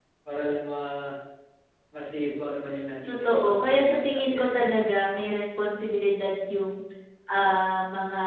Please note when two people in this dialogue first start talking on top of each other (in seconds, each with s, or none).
3.1 s